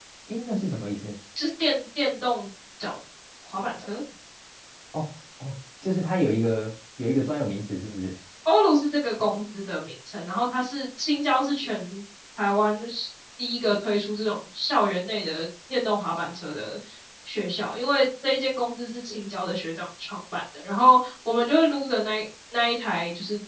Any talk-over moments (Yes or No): No